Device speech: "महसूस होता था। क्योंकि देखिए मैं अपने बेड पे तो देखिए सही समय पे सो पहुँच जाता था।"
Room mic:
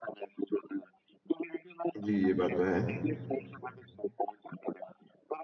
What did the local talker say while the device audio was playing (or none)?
जी, ये बात तो है।